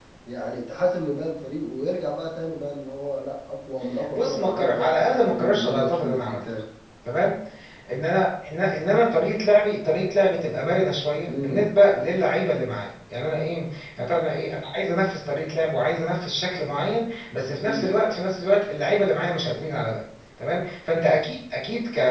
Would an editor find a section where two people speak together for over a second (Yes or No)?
Yes